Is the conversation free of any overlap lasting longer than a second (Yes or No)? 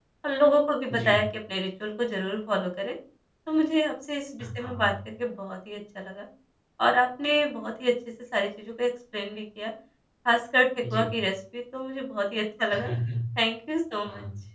Yes